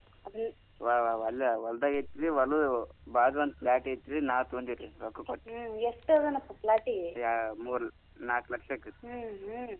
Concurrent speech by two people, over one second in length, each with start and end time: none

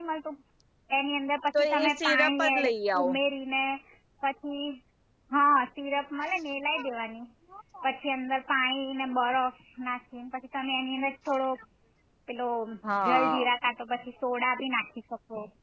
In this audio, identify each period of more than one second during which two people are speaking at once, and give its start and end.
1.6-3.1

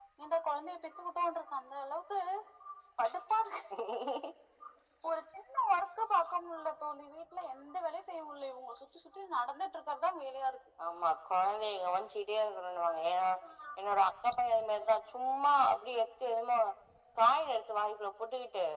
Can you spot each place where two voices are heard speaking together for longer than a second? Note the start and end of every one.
none

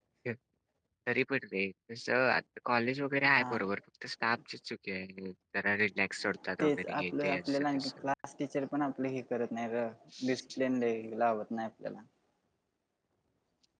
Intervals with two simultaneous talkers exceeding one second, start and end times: 6.6-7.9

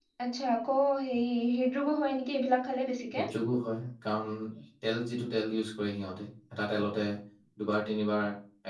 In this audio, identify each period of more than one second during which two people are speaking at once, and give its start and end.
none

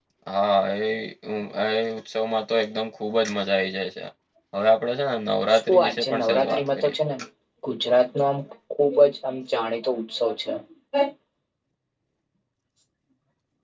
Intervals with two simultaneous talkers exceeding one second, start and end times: 5.5-6.9

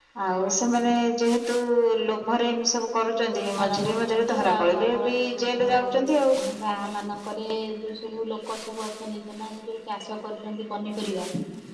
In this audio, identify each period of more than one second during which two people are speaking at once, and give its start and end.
3.6-5.7

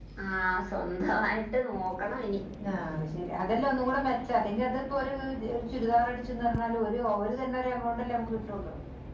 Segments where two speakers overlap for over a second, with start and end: none

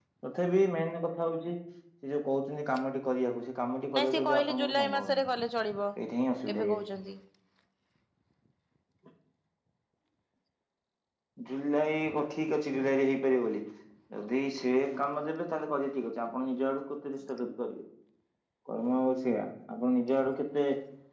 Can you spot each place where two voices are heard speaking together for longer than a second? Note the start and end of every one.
4.0-5.2

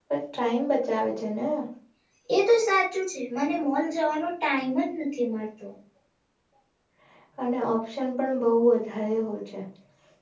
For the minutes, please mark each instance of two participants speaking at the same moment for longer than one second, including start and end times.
none

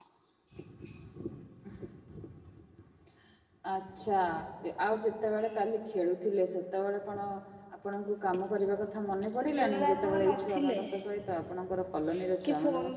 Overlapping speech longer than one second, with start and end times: 9.4-10.8

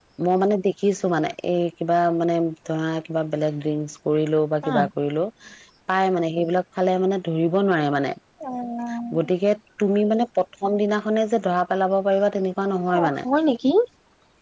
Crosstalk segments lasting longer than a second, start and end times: none

